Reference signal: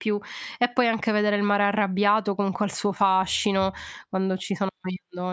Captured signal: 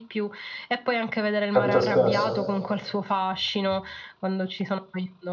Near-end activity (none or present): present